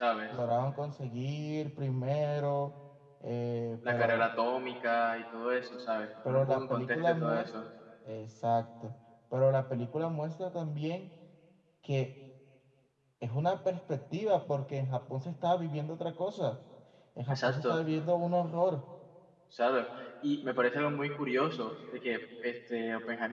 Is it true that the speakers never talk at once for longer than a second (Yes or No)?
No